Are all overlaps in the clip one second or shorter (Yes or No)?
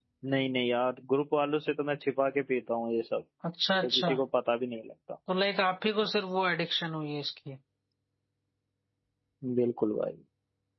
Yes